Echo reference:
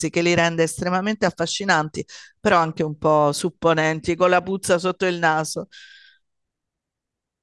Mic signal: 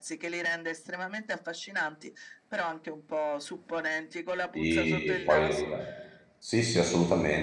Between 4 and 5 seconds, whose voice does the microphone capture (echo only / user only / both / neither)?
both